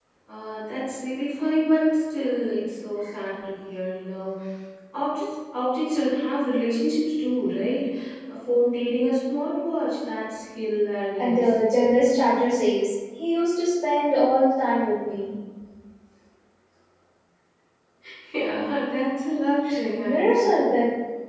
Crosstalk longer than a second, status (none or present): none